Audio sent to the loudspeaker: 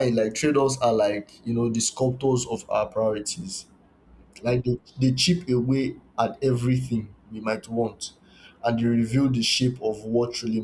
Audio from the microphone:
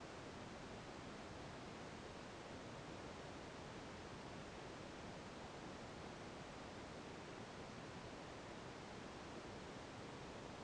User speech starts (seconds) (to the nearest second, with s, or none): none